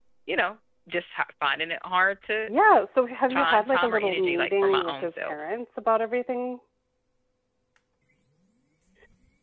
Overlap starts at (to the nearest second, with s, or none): 3 s